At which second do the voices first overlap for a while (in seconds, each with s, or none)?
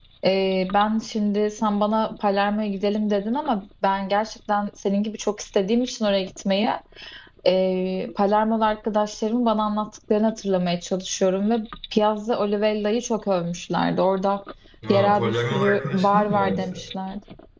14.9 s